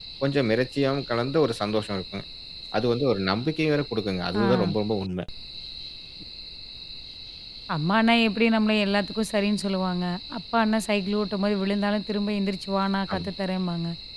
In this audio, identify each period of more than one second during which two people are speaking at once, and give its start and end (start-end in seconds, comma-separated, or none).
none